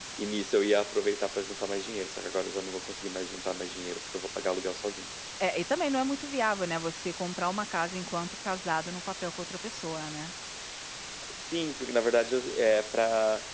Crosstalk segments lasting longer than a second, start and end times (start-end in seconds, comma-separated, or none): none